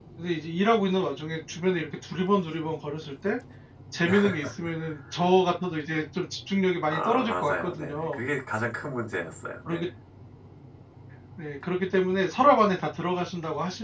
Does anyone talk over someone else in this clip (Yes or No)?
Yes